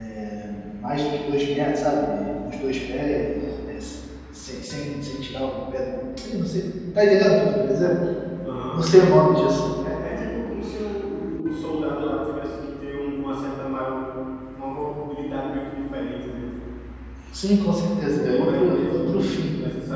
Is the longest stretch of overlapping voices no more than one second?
No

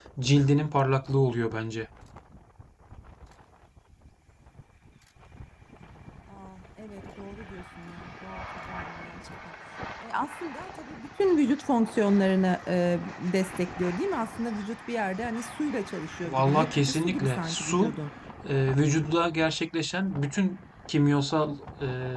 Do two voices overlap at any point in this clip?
Yes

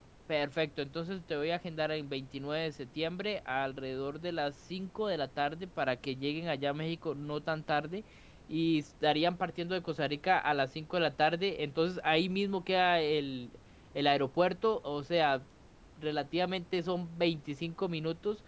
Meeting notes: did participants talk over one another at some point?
No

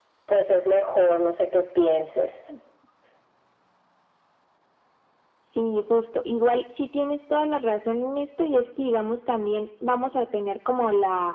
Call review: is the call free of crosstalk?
Yes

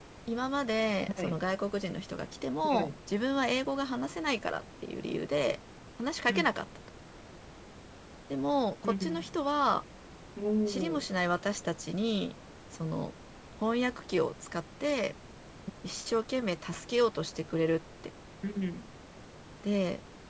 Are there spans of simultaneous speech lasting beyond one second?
No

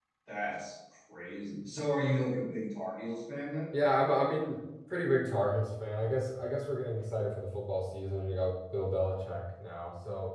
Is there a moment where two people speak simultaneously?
No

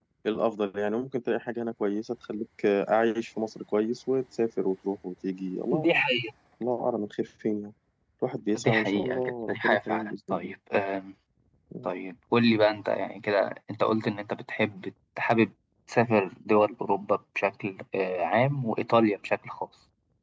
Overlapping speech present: Yes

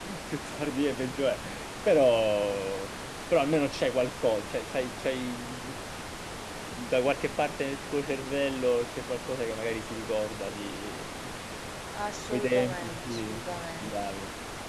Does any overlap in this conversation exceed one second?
Yes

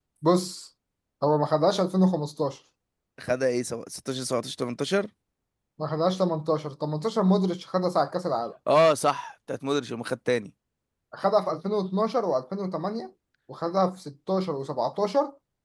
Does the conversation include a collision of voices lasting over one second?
No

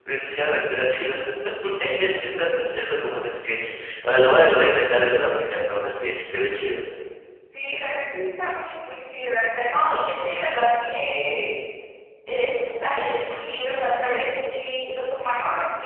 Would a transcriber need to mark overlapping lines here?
No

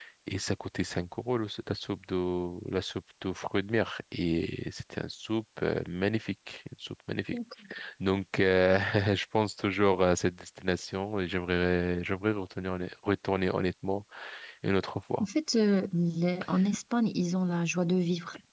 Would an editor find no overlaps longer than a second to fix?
Yes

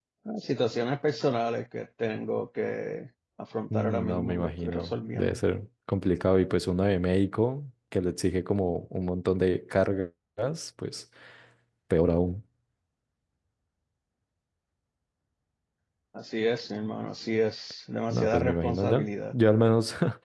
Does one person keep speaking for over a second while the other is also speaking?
Yes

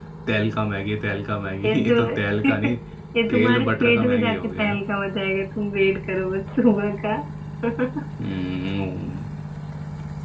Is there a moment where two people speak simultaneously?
Yes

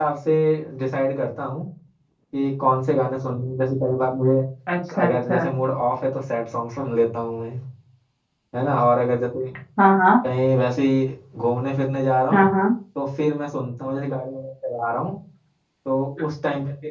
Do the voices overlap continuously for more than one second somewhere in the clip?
No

